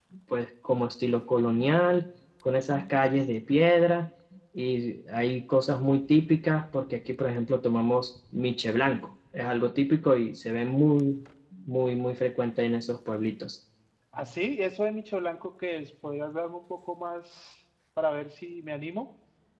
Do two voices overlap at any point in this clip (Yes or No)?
No